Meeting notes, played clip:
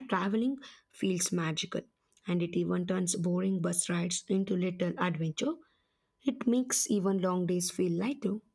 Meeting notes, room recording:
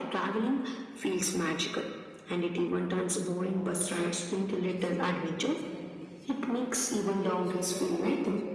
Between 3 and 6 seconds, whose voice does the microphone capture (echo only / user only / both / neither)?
both